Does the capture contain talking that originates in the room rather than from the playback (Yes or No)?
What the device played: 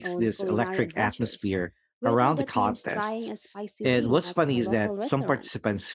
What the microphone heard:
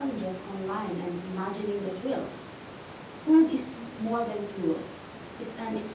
Yes